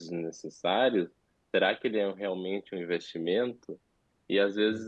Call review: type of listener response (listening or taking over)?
listening